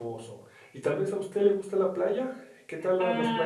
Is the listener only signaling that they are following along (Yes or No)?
No